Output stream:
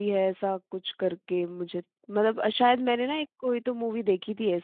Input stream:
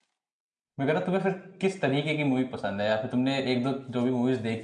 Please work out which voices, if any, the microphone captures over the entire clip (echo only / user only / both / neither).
user only